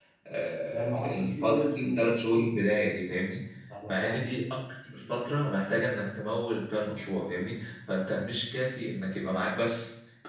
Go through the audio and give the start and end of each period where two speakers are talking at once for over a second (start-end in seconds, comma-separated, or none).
0.7-2.0